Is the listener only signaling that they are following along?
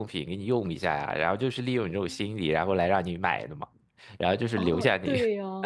No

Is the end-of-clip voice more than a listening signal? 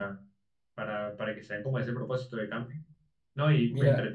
No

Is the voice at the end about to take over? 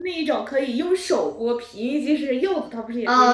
Yes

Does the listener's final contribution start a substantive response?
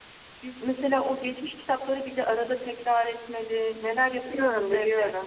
Yes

